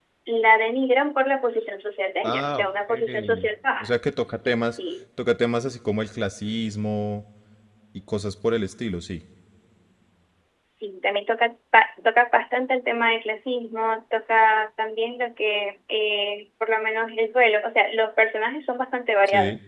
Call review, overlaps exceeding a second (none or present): present